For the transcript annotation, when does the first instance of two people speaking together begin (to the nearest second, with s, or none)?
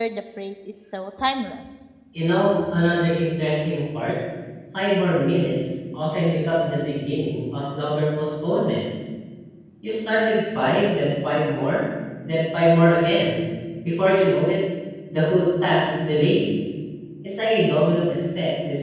none